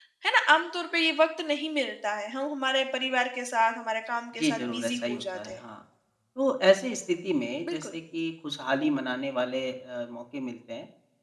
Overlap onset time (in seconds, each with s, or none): 4.4 s